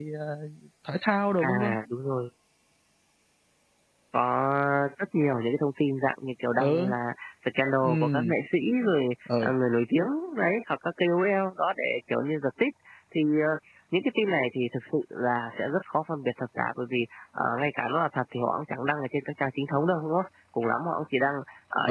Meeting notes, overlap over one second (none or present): none